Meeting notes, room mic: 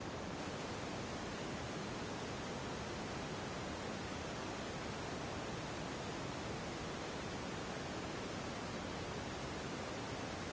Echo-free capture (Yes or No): Yes